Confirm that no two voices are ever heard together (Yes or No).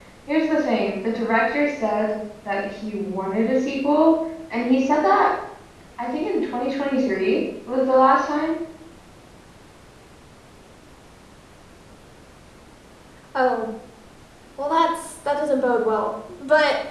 Yes